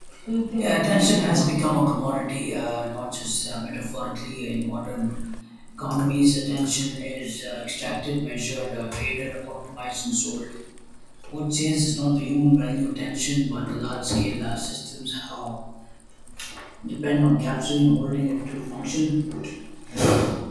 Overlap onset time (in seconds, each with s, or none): 0.6 s